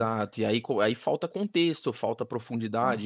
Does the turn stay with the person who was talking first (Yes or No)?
Yes